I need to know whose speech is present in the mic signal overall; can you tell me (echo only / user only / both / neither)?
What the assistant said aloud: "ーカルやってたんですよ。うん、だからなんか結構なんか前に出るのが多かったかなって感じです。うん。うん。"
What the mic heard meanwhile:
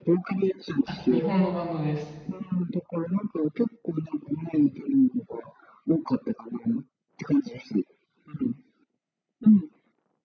both